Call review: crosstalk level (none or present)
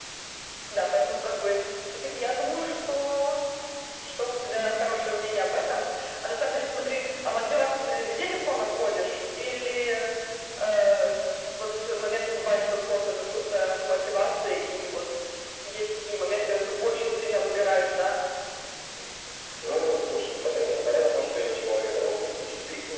none